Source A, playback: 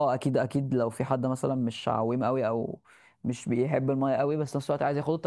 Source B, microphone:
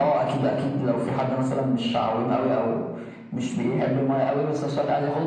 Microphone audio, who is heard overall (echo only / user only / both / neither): echo only